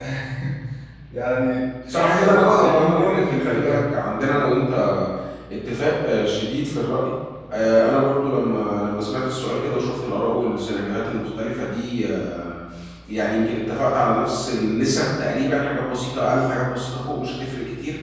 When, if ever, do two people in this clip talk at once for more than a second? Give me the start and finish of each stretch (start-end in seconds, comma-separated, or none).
1.9-3.8